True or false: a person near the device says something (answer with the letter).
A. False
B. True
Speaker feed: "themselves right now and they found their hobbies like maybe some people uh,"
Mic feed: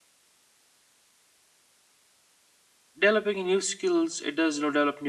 B